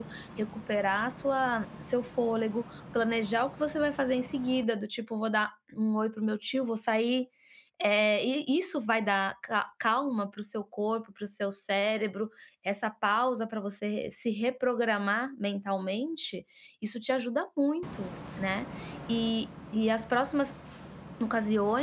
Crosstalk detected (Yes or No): No